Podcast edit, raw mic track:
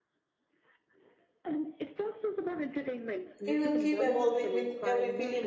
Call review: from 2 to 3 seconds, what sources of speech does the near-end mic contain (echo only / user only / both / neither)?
echo only